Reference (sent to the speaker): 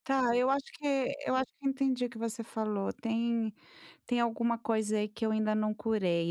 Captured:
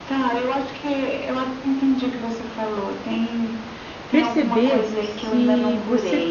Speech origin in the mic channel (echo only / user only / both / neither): both